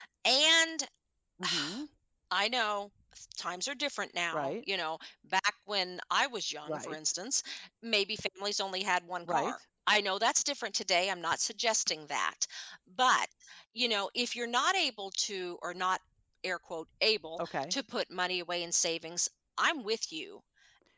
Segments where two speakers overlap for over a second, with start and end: none

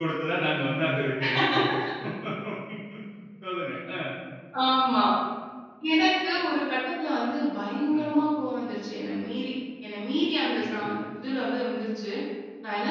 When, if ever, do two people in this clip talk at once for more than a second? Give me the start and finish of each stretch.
none

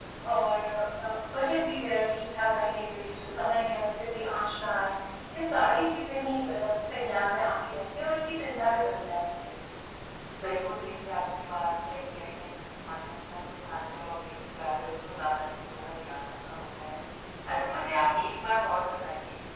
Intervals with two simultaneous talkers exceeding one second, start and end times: none

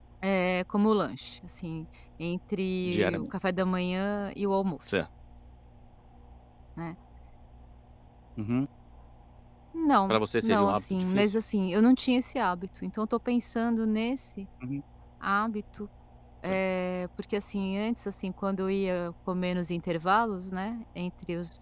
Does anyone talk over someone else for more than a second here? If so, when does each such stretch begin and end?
10.1-11.3

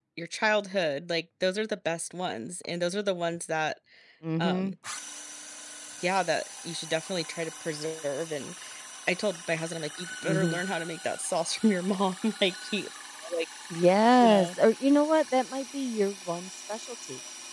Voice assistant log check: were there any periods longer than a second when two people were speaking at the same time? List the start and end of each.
none

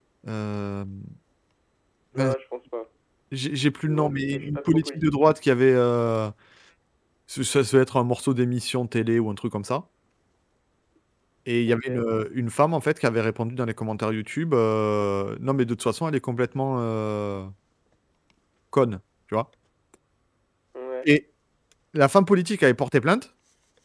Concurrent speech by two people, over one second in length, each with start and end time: 3.9-5.2

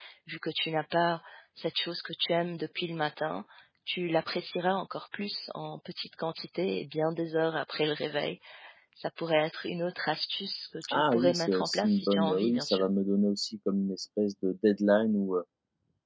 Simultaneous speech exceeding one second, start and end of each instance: 10.9-12.9

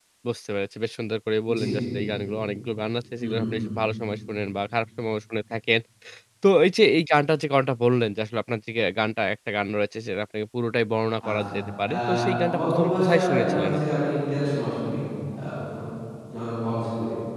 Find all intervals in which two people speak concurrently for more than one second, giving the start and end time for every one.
12.5-14.0

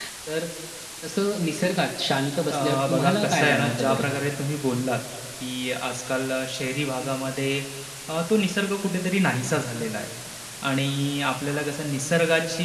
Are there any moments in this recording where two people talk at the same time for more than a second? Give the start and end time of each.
2.5-4.0

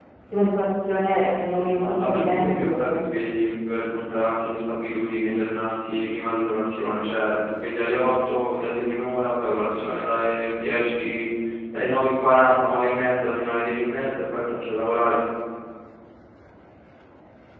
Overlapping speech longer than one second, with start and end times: 1.5-3.0

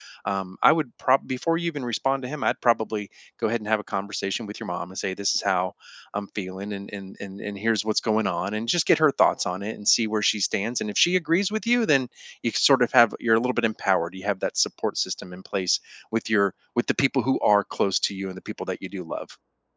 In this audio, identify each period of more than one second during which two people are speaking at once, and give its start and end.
none

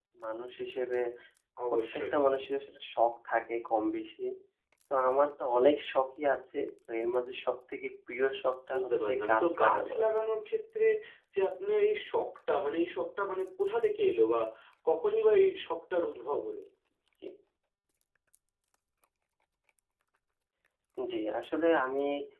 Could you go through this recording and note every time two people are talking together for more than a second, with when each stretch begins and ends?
8.7-10.0

